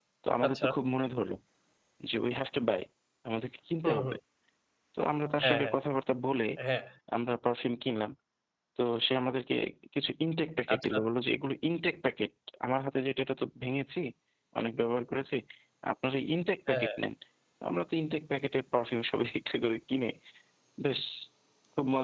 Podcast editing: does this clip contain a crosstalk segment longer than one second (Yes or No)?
No